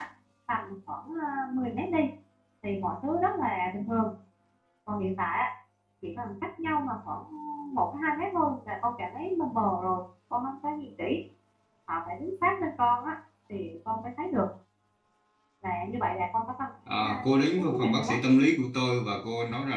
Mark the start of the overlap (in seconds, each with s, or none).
16.9 s